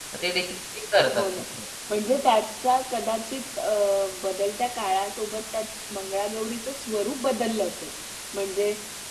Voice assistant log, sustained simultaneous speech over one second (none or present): none